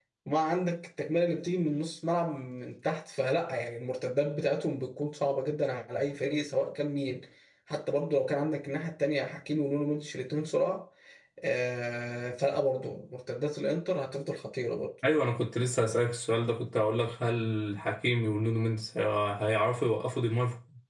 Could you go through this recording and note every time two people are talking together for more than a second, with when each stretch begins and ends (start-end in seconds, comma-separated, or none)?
none